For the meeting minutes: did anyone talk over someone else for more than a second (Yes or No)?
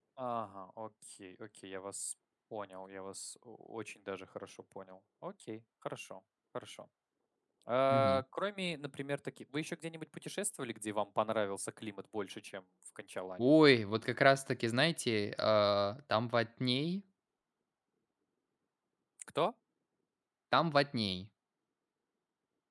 No